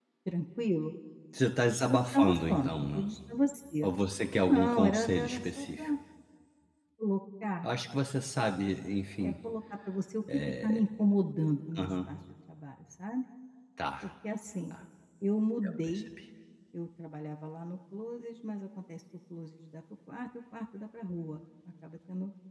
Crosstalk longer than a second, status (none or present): present